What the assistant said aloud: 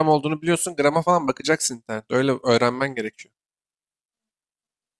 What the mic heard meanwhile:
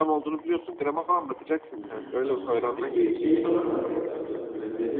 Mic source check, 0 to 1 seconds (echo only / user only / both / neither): echo only